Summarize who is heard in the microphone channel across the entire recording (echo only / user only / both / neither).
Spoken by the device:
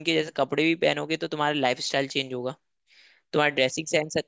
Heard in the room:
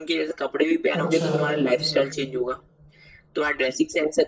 both